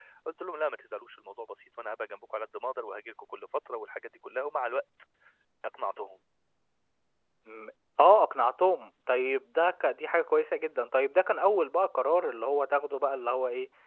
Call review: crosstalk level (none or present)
none